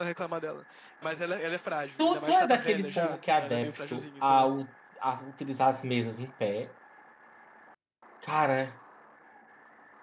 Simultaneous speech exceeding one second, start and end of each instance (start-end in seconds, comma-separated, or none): 2.0-4.5